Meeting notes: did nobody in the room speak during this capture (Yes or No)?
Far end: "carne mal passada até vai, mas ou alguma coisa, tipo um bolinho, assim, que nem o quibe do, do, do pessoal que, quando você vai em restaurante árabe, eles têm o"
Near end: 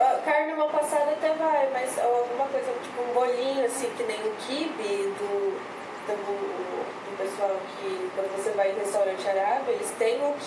Yes